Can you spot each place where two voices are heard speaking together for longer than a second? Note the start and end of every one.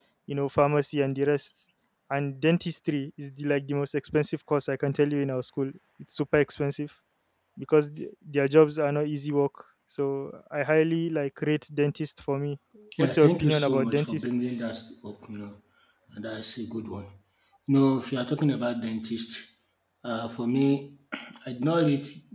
13.0-14.3

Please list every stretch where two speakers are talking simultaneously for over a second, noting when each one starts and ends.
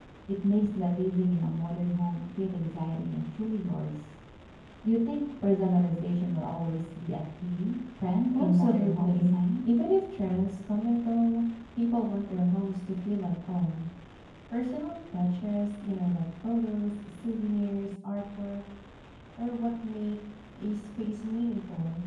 8.3-9.6

